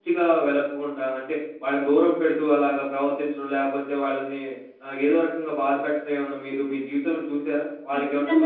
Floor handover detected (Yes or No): Yes